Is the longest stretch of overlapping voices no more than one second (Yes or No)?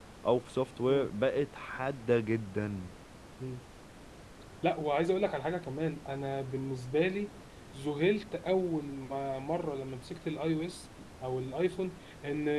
Yes